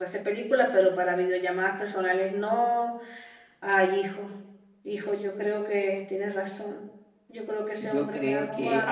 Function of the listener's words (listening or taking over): taking over